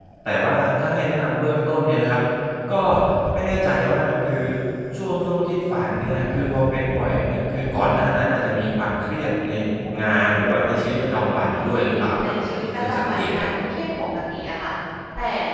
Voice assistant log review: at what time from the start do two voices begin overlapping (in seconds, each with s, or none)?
11.5 s